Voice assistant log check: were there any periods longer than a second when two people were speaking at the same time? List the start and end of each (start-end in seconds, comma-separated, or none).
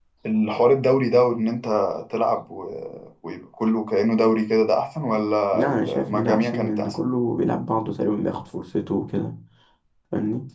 5.5-7.0